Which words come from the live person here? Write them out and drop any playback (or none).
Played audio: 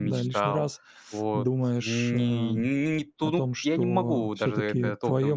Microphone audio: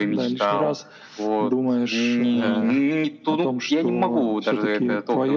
Да,